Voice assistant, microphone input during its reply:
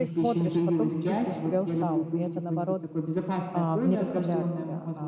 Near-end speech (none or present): present